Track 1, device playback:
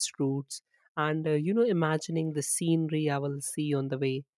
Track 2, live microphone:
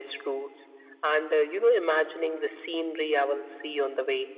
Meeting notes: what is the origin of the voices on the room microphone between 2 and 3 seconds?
echo only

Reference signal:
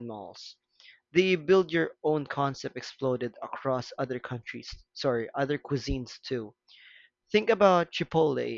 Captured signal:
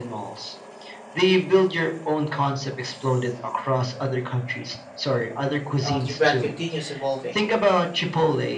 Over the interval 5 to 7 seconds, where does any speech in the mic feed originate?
both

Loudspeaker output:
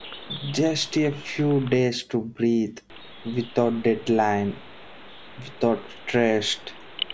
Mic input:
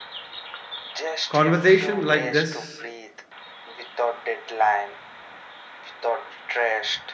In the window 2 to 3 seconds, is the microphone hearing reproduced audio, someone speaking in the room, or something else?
both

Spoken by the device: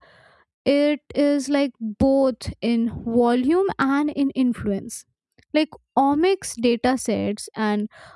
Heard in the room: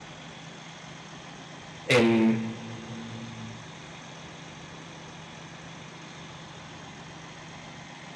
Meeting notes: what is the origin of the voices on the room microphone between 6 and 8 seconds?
neither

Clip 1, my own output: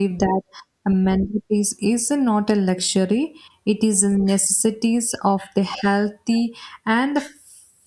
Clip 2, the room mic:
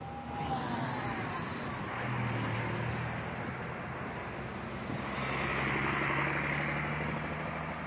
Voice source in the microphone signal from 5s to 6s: neither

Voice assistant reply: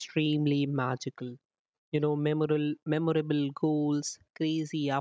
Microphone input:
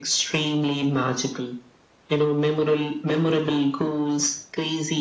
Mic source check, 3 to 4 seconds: echo only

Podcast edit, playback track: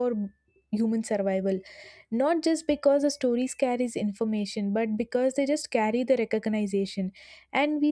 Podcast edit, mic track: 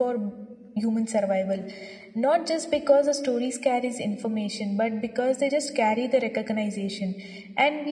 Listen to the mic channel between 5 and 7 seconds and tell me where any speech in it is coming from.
echo only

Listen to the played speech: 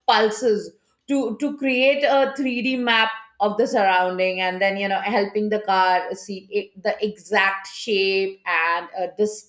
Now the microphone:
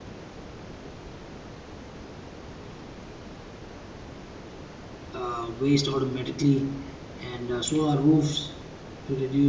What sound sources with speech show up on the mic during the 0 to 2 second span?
neither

